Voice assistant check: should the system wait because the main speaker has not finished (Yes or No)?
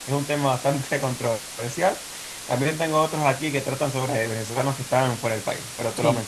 No